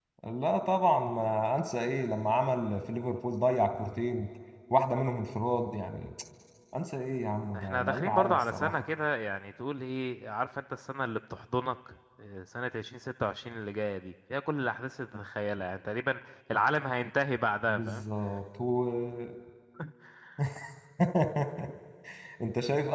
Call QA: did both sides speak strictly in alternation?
No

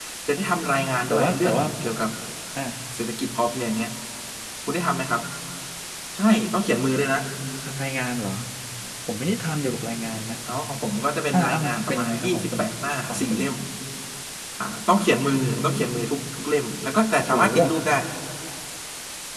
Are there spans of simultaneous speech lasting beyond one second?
Yes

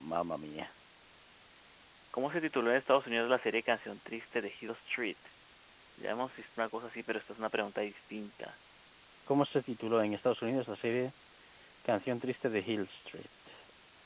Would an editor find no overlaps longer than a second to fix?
Yes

